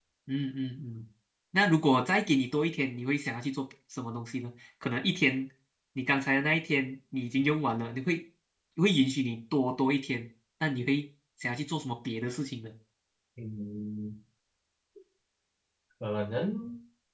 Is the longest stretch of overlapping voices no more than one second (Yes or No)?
Yes